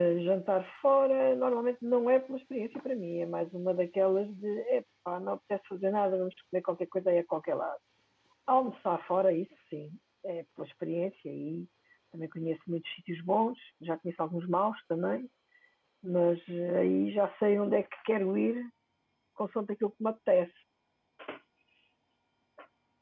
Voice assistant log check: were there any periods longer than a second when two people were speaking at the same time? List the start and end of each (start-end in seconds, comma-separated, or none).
none